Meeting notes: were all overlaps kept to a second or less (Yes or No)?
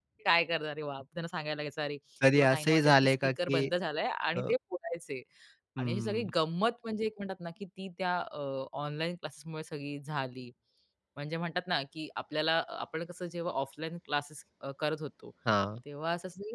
No